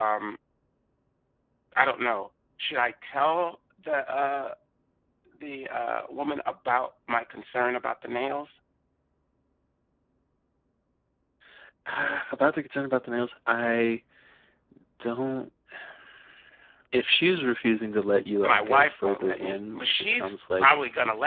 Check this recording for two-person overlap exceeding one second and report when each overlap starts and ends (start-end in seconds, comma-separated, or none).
18.4-20.7